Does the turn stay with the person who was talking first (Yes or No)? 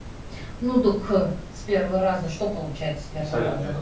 No